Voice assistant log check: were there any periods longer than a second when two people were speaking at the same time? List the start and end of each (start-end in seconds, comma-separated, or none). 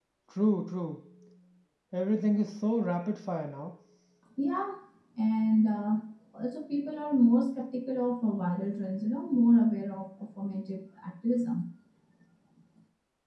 none